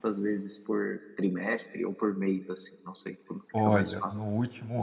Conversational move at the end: taking over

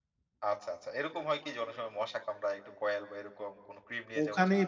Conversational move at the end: taking over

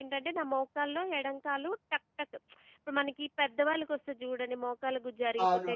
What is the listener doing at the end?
taking over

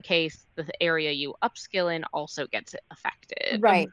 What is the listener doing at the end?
taking over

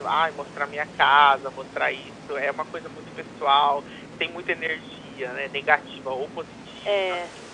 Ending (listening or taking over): listening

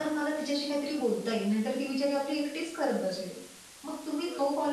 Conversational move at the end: listening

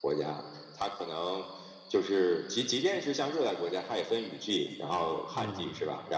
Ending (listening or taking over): listening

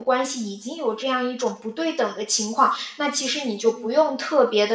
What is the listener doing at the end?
listening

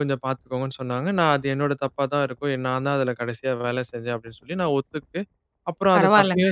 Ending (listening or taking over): listening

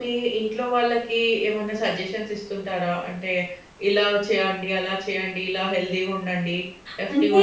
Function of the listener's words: taking over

